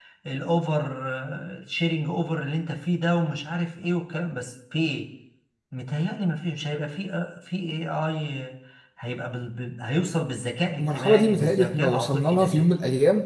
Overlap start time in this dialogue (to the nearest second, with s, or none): 11 s